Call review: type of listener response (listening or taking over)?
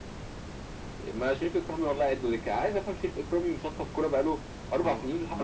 taking over